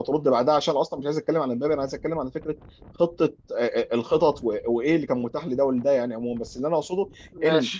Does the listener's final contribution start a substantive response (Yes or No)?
No